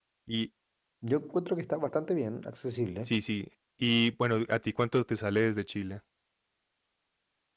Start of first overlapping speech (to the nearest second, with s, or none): none